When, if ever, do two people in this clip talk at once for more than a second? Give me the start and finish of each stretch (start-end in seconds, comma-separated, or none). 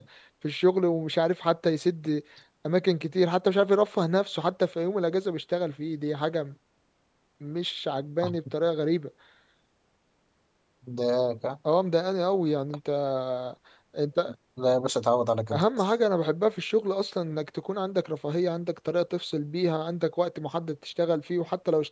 none